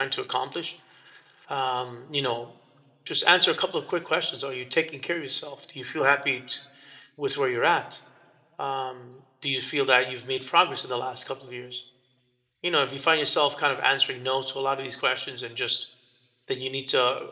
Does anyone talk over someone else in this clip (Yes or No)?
No